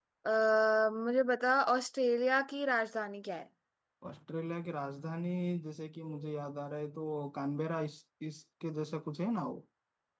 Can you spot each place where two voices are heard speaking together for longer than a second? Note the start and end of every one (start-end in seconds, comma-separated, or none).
none